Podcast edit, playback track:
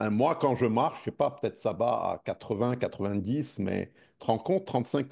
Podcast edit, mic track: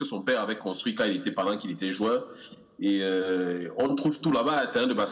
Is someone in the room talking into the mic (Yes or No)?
Yes